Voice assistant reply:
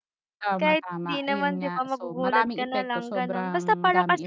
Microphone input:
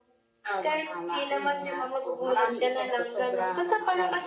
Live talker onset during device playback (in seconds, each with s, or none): none